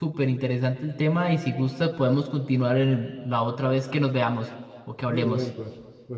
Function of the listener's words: taking over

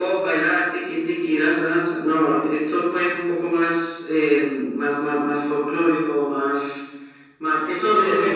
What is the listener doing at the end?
taking over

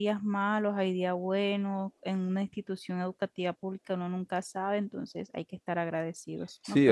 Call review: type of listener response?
taking over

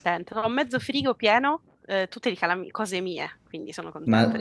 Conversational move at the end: taking over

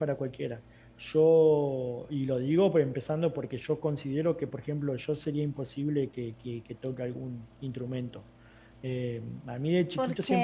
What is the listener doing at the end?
listening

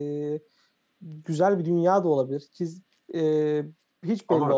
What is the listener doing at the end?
taking over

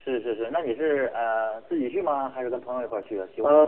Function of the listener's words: taking over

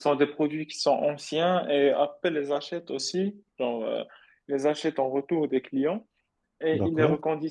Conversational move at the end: listening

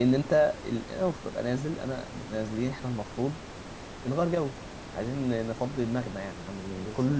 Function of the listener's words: listening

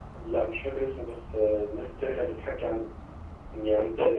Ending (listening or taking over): listening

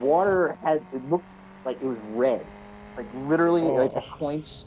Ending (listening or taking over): listening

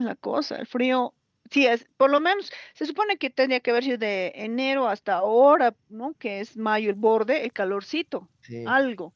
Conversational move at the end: listening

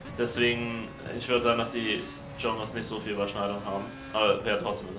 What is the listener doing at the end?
taking over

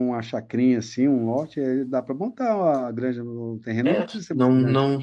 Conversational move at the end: taking over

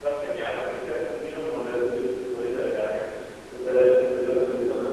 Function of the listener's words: listening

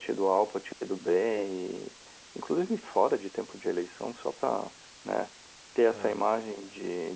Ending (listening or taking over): listening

